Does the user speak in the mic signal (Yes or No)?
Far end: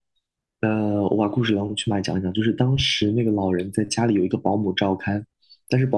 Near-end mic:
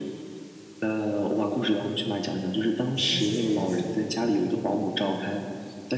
Yes